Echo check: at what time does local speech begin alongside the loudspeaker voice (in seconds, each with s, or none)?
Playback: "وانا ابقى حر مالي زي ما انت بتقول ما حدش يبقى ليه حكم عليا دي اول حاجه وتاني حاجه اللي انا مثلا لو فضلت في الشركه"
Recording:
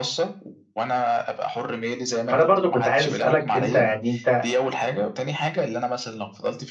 2.3 s